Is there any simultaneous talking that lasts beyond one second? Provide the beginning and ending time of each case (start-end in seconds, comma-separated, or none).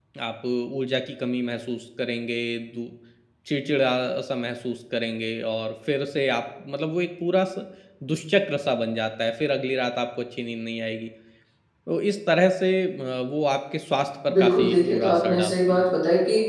14.3-15.9